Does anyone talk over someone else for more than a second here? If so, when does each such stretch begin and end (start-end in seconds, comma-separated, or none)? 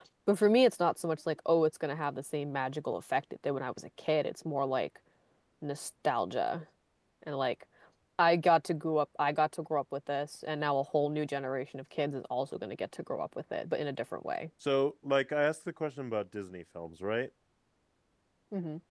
none